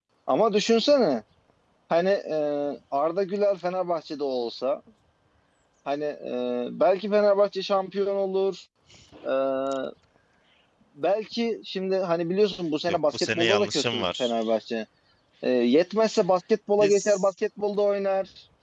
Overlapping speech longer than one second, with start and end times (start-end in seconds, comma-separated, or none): 12.9-14.4